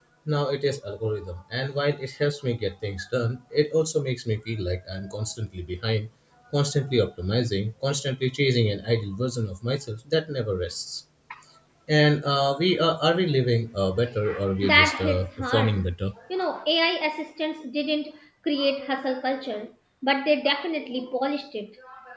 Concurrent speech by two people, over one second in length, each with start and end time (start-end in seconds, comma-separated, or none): 14.6-15.8